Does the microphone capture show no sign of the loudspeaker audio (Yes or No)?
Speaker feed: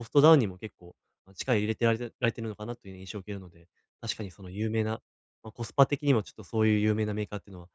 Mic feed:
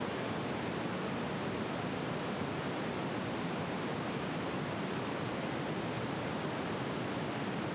Yes